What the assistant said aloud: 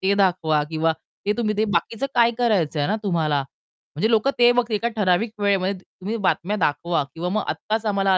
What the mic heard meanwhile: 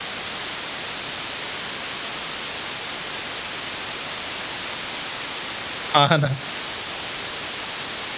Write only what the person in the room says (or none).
हां, ना.